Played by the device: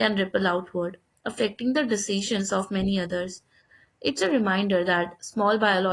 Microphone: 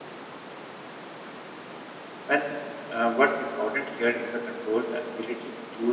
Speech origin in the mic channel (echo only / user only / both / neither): user only